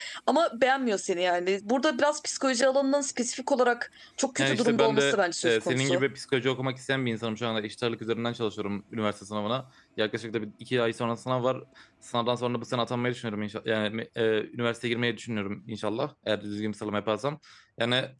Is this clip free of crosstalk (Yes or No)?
No